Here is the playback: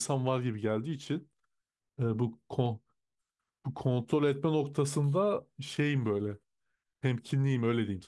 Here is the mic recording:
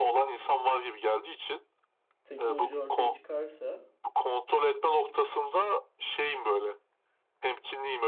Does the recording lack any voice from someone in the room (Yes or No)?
No